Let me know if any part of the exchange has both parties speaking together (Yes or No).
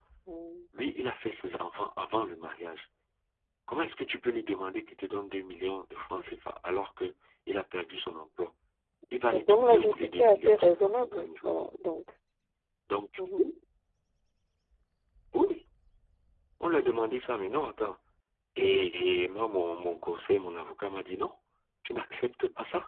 Yes